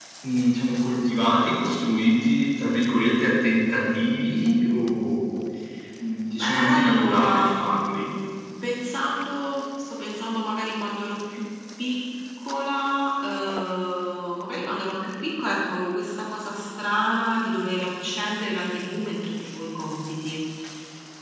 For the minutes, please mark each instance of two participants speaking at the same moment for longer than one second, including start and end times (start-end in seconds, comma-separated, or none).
6.4-8.1